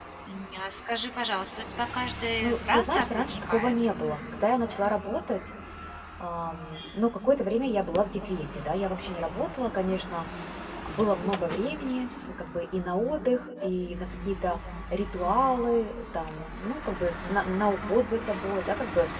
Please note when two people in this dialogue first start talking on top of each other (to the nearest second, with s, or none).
2 s